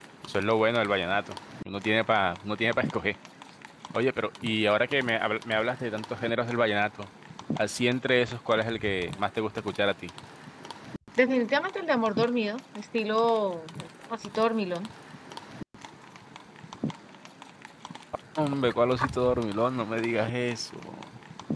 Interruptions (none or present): none